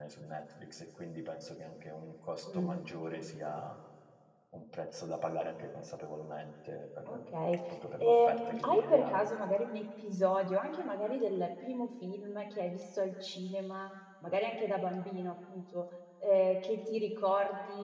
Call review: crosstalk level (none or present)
present